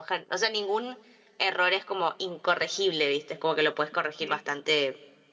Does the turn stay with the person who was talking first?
Yes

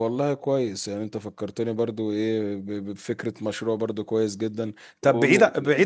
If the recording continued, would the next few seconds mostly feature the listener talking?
No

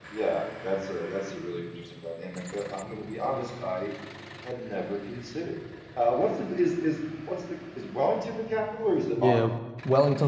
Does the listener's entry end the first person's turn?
Yes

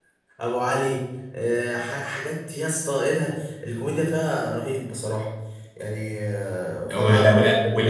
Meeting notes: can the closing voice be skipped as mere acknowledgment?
No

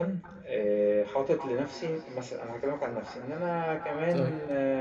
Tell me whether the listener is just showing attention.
Yes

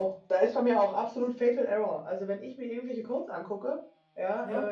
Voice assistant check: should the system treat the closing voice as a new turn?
No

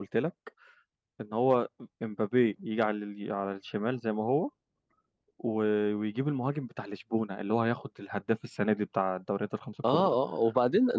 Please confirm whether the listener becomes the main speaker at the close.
Yes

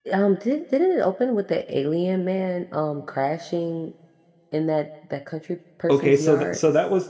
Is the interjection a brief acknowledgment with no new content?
No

